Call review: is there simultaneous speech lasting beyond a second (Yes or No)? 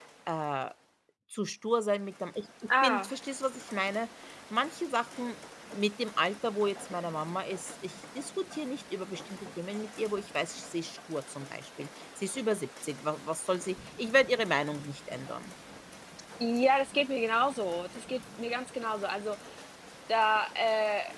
No